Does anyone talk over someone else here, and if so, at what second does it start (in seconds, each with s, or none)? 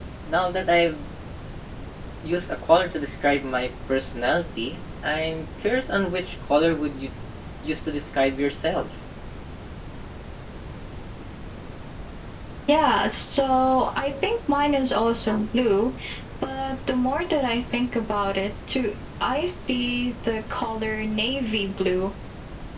none